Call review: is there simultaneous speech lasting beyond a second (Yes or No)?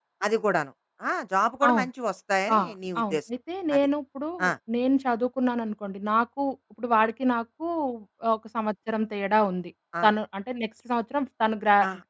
No